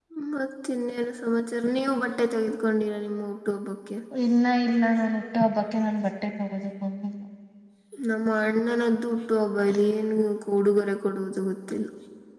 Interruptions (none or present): none